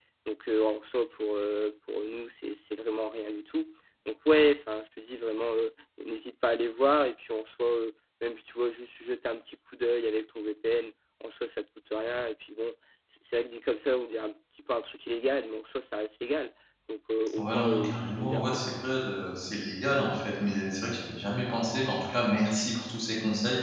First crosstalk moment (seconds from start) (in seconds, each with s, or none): 17.4 s